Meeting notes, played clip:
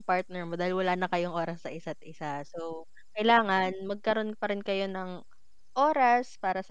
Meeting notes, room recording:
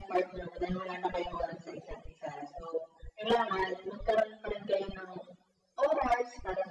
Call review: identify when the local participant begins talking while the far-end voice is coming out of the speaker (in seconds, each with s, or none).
none